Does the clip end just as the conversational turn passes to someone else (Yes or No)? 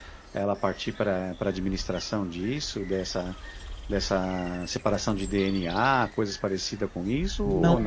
Yes